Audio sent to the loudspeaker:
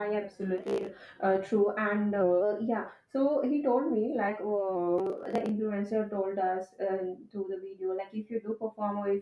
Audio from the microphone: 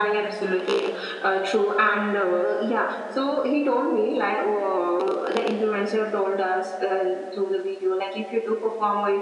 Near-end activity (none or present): none